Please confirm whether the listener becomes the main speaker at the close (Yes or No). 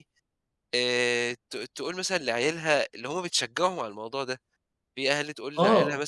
No